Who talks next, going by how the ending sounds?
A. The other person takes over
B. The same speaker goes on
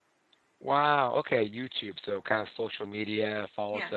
B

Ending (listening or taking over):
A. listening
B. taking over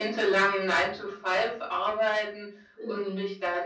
A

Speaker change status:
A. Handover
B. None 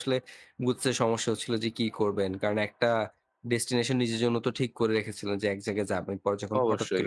B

